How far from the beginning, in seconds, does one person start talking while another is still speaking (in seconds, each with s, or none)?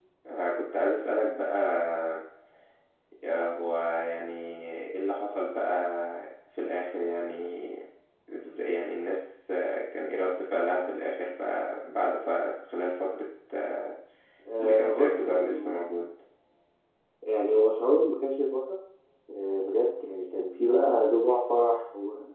14.6 s